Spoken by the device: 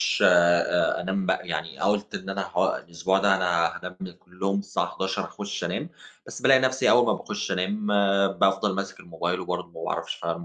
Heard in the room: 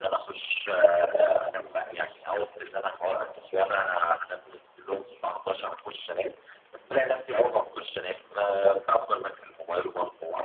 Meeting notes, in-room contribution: none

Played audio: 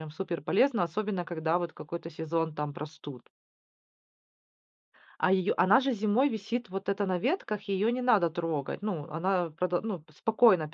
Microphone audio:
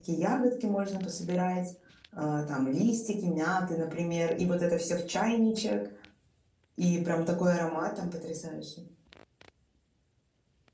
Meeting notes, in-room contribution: present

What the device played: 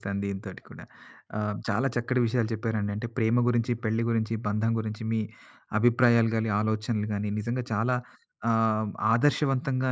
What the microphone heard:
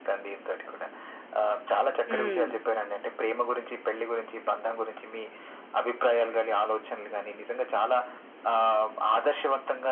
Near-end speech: present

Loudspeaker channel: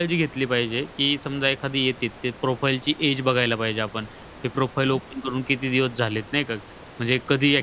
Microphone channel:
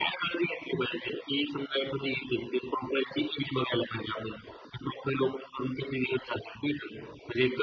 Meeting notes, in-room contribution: none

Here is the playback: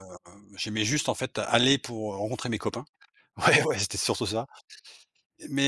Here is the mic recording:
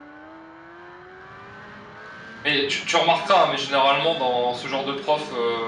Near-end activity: present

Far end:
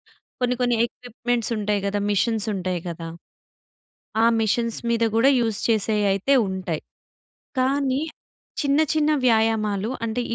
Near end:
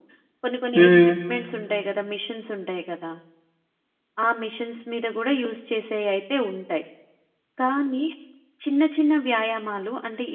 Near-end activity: present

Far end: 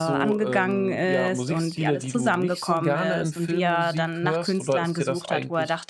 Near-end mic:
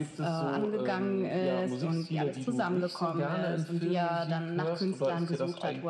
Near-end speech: none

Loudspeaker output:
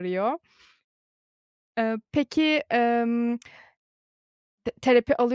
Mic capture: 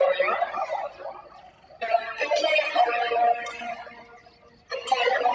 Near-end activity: none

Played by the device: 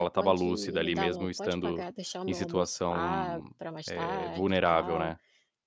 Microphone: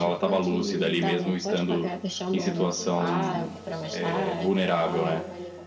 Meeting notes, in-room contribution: present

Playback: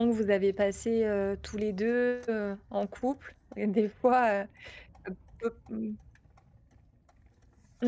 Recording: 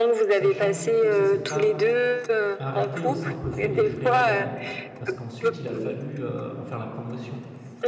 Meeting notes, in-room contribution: present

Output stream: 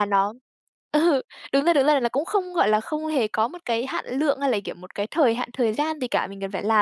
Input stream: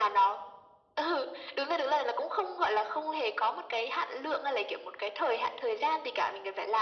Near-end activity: none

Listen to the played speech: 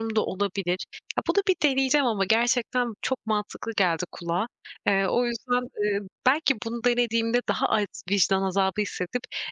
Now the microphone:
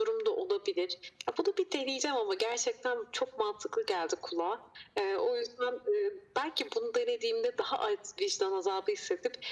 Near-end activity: none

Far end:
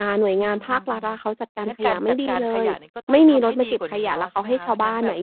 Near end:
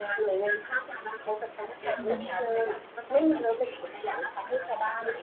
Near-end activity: present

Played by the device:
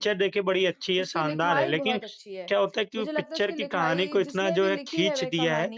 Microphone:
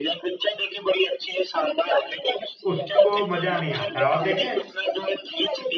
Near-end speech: present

